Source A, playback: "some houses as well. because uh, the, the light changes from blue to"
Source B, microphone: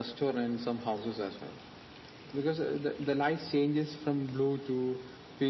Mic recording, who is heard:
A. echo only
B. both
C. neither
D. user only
A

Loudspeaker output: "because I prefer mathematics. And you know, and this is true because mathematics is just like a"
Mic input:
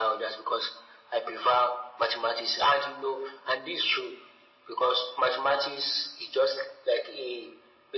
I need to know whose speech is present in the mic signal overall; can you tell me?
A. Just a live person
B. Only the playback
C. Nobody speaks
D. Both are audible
B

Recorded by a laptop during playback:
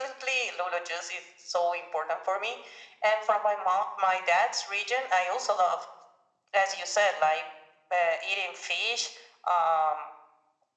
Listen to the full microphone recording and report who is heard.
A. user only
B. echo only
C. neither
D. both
B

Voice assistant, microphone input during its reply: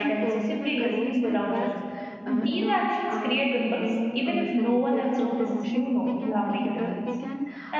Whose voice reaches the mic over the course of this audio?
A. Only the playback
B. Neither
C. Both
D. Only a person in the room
C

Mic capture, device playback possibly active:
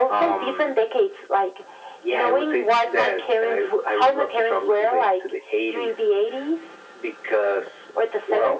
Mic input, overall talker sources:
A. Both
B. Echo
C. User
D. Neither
B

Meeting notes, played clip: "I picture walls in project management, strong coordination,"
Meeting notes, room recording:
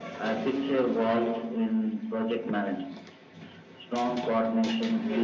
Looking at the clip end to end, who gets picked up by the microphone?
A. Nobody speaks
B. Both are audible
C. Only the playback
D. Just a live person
C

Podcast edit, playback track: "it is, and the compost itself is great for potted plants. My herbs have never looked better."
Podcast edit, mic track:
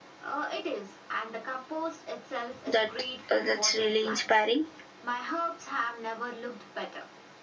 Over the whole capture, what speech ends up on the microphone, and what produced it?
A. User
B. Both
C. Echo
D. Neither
B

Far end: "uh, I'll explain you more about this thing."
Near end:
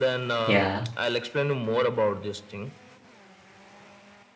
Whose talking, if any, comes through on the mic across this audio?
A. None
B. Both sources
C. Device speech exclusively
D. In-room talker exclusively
B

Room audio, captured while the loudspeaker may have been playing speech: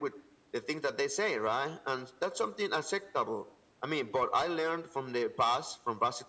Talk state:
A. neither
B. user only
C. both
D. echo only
D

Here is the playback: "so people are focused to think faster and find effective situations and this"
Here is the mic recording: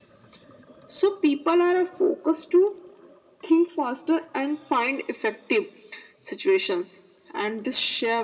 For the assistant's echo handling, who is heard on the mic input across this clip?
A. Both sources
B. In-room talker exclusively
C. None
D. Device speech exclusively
D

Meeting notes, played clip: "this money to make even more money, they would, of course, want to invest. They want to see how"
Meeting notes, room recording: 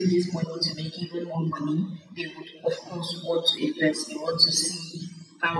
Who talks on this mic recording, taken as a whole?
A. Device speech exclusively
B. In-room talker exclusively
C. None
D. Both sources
A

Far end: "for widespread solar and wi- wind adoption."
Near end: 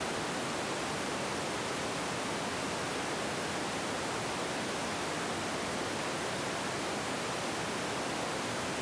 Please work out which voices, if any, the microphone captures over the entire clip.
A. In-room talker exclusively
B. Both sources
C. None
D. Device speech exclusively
C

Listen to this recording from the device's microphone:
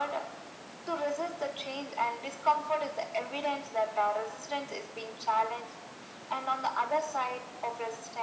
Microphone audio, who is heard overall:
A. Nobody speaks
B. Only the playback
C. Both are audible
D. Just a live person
B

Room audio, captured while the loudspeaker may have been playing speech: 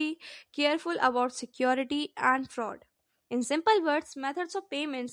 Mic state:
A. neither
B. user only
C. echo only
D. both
B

